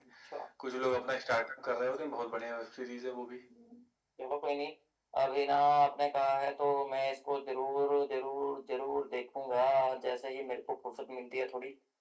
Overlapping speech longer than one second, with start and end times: none

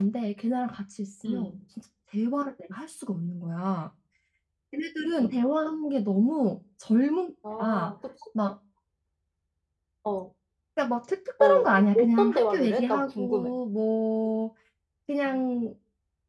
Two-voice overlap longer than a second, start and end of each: 11.4-13.5

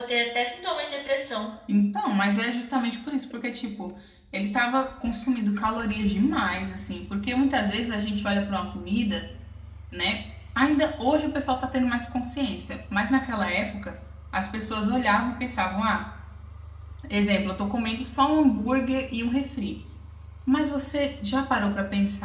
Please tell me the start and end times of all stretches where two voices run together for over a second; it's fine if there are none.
none

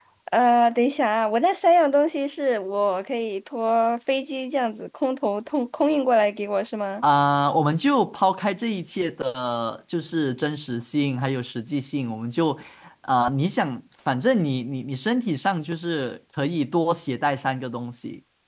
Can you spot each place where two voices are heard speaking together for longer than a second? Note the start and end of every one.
none

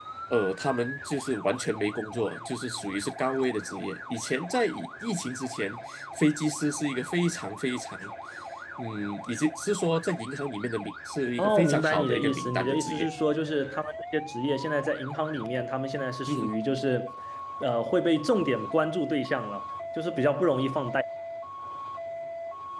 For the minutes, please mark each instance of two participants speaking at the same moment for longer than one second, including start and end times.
11.4-13.1

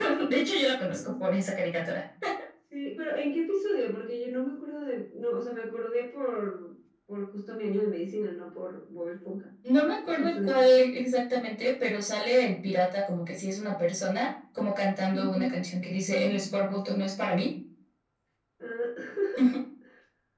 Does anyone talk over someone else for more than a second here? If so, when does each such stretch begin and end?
none

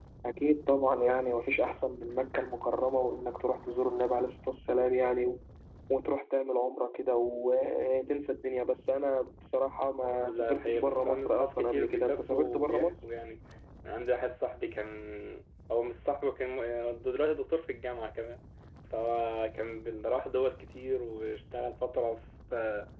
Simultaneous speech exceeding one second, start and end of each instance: 10.2-12.9

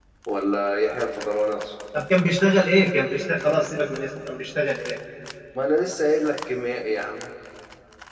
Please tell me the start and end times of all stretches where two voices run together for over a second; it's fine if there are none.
none

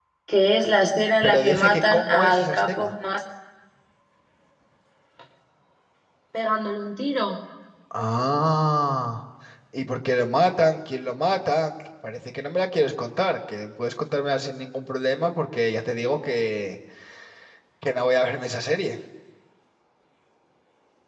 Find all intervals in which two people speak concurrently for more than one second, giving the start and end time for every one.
1.2-2.9

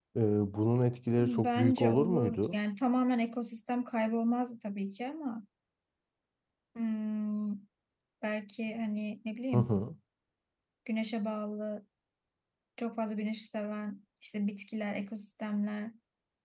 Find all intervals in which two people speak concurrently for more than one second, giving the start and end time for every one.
1.2-2.5

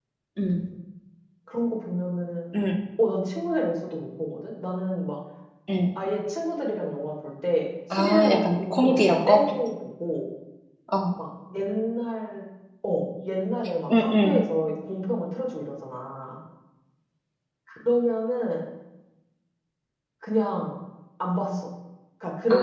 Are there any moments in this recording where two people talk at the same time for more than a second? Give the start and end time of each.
7.9-9.4

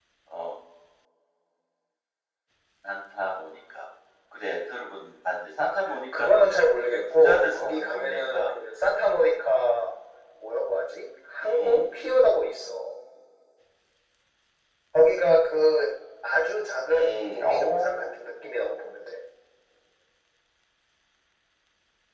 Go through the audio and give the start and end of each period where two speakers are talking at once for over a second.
7.1-8.4, 16.9-18.1

